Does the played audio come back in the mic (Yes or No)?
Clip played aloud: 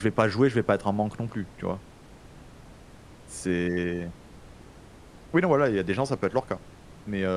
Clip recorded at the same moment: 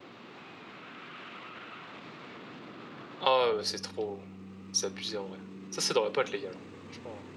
No